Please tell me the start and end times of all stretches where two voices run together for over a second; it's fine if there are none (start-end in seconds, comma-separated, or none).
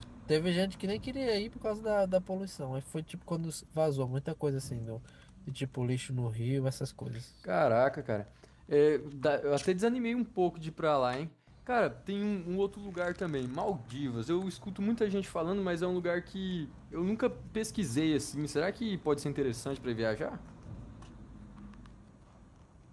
none